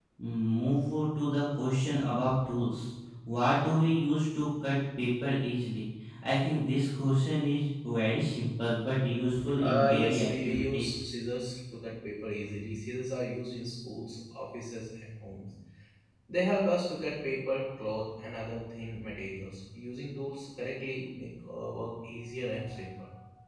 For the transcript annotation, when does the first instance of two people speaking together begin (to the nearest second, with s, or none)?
10 s